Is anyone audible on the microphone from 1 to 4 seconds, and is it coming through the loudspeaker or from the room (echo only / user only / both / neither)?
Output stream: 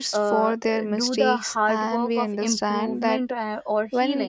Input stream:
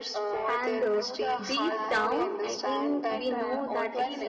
both